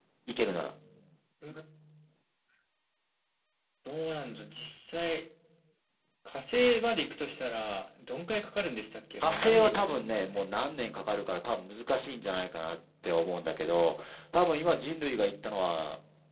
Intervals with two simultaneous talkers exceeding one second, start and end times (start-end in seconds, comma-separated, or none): 9.2-10.4